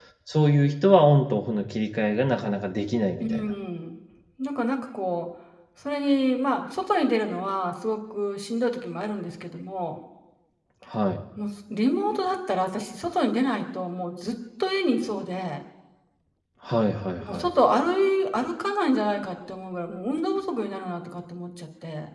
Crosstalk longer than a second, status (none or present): none